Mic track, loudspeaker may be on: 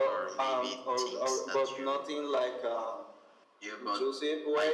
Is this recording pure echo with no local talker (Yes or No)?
Yes